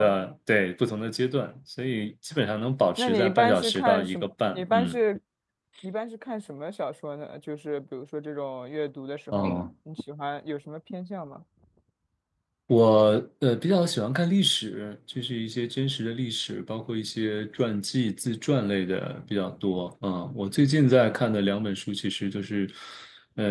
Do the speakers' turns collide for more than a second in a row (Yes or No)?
Yes